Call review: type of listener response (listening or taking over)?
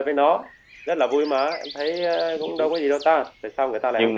taking over